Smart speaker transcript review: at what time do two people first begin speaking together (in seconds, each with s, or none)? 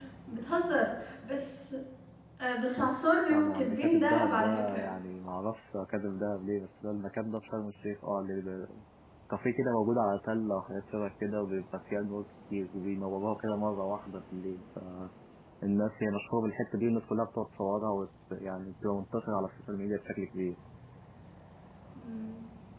3.3 s